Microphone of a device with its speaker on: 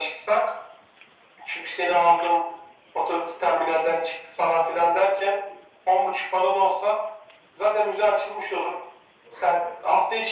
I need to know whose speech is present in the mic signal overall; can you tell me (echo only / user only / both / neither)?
echo only